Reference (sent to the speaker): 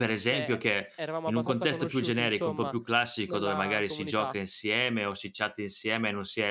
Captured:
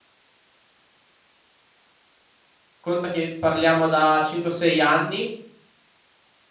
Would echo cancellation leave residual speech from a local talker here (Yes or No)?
Yes